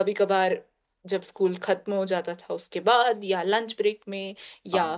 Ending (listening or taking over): listening